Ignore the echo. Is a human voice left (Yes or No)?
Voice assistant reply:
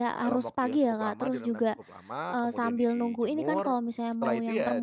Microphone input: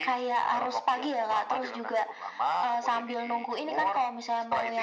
No